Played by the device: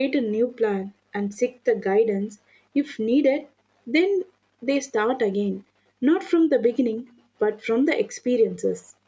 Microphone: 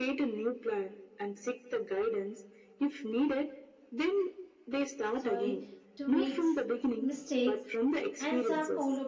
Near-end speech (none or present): present